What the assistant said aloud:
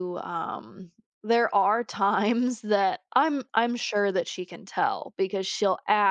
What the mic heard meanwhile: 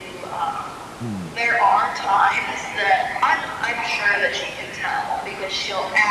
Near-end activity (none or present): present